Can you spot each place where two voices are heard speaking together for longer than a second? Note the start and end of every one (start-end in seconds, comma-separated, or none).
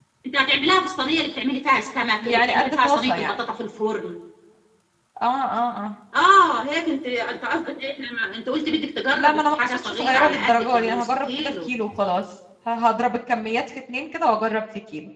2.2-3.4, 9.1-11.7